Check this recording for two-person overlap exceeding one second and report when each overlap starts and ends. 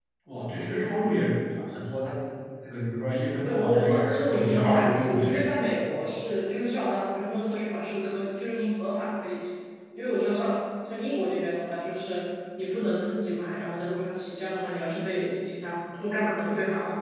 3.4-5.4

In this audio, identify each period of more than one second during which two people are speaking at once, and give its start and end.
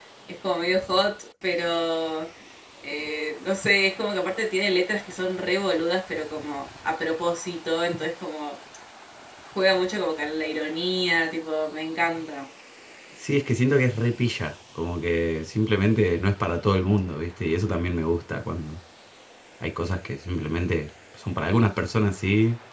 none

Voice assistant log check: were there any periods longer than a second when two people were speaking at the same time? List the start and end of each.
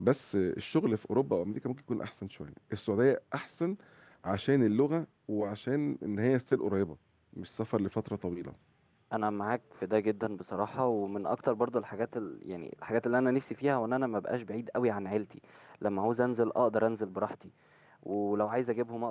none

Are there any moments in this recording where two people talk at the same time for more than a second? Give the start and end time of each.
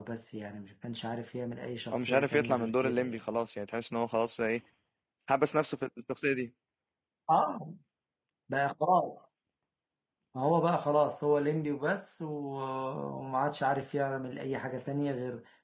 1.9-3.2

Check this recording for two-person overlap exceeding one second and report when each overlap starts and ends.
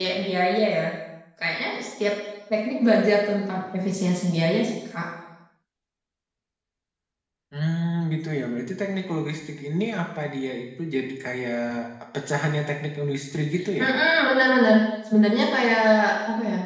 none

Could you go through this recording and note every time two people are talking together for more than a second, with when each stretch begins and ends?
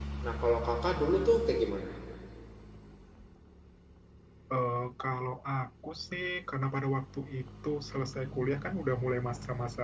none

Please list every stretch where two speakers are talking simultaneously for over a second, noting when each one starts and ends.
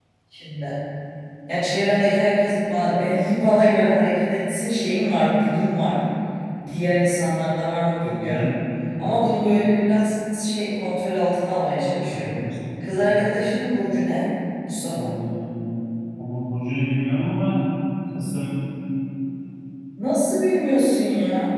none

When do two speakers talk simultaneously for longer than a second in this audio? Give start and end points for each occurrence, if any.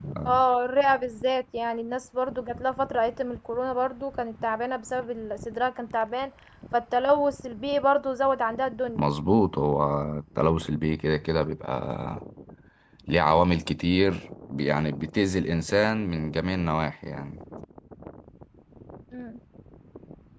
none

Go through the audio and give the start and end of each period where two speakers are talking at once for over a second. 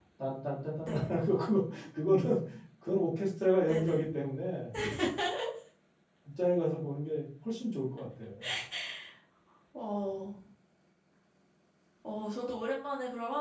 none

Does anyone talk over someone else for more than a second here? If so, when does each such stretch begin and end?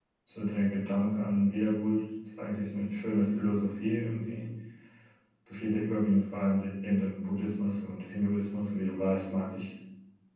none

